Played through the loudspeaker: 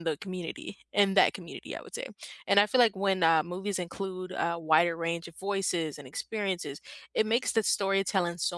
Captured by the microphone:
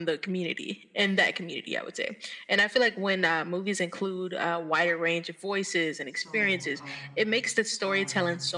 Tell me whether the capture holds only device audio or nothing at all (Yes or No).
No